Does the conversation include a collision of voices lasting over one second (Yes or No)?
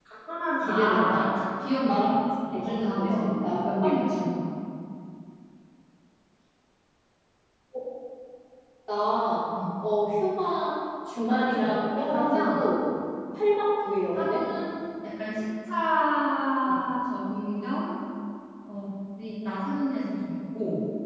Yes